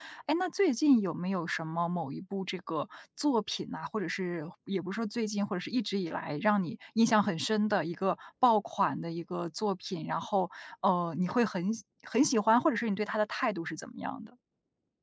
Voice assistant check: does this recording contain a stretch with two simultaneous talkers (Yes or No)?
No